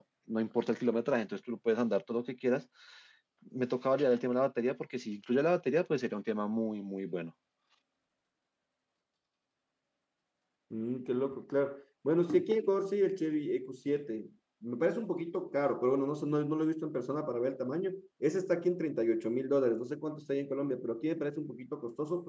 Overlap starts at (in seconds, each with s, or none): none